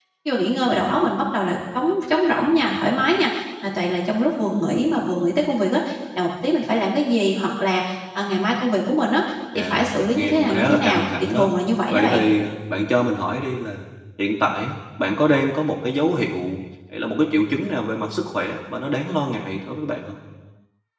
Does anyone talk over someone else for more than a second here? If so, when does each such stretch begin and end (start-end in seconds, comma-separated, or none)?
9.6-11.5